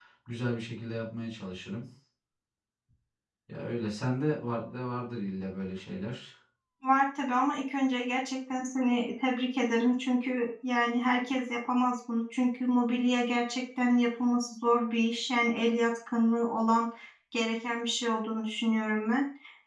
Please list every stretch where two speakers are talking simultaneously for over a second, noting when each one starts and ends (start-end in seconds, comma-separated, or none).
none